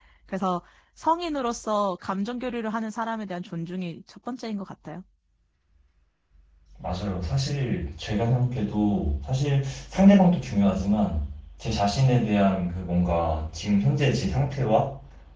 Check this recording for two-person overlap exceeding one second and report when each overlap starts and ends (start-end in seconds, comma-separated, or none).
none